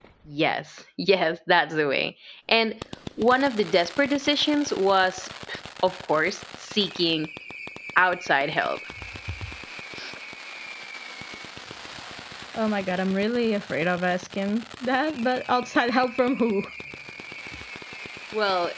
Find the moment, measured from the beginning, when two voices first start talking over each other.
none

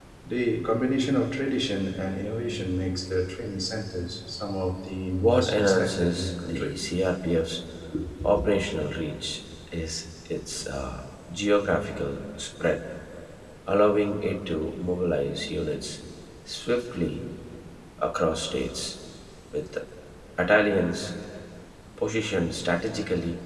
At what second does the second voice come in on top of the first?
5.2 s

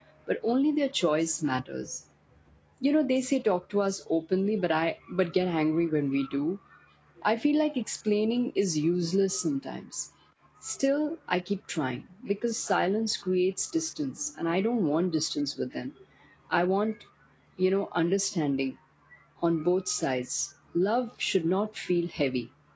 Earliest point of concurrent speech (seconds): none

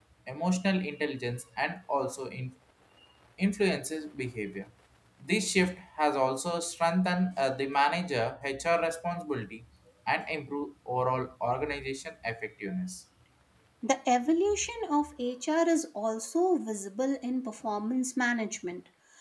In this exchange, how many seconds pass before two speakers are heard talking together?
none

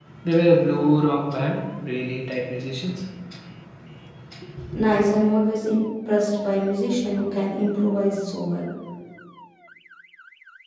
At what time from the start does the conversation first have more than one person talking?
none

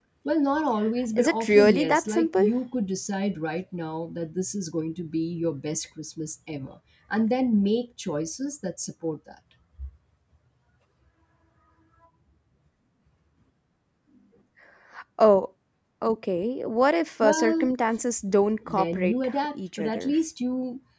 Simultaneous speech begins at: 1.2 s

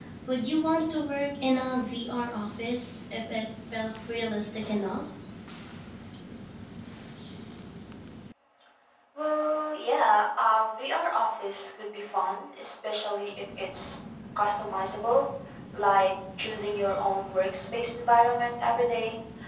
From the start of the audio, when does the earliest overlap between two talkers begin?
none

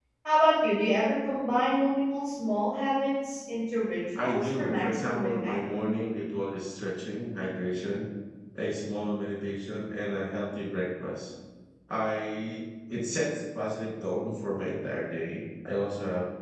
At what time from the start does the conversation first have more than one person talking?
4.1 s

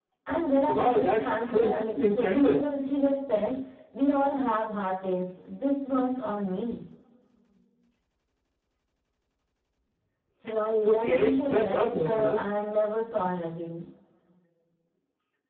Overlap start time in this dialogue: 0.6 s

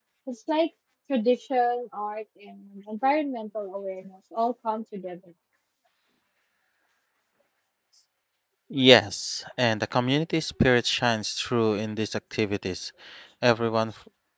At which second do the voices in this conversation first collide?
none

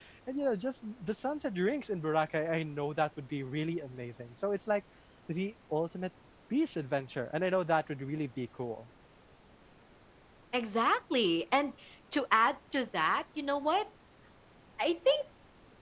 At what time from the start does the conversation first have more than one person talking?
none

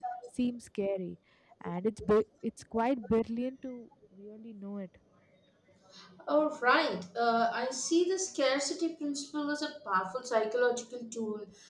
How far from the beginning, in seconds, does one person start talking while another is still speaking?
none

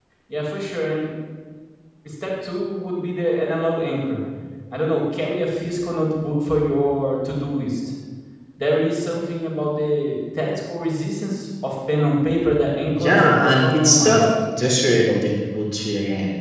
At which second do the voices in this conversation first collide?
12.9 s

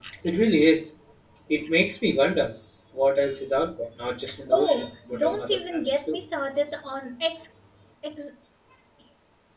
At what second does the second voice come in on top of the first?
4.5 s

